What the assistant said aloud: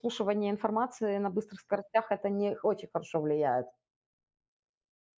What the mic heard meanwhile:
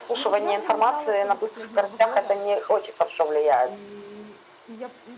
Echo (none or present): present